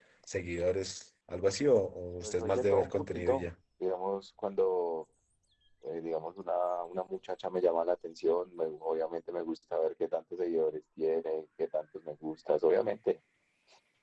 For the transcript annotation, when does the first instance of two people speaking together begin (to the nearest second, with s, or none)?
2 s